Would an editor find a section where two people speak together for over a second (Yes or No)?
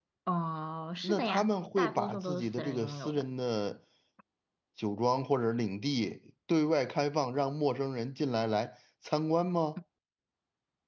Yes